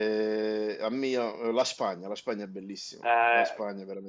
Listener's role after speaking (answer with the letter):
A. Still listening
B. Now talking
B